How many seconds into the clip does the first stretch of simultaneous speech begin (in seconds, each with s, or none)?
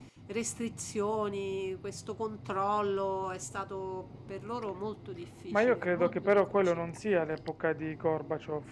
5.5 s